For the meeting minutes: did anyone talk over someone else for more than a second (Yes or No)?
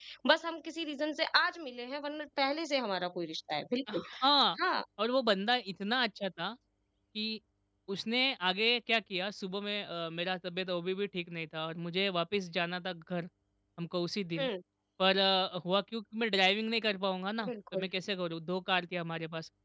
No